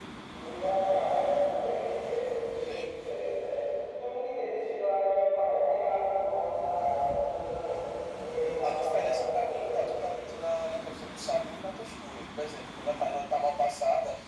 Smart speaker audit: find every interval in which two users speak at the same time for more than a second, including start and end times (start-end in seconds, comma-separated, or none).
8.6-10.0